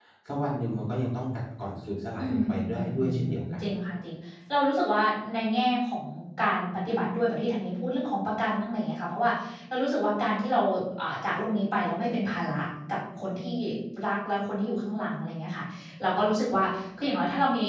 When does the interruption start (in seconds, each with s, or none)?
2.2 s